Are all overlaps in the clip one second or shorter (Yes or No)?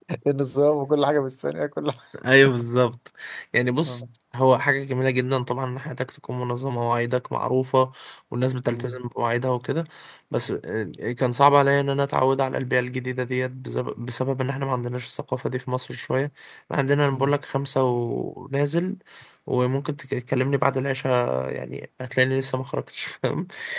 Yes